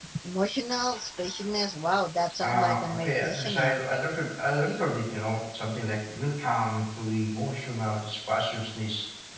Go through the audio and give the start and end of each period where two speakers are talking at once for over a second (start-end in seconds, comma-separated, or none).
2.4-3.8